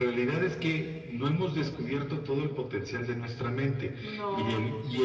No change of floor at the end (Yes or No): Yes